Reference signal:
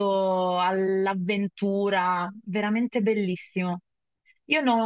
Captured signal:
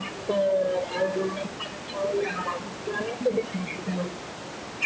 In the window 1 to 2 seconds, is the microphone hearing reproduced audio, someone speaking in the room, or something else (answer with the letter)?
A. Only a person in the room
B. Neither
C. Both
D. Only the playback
D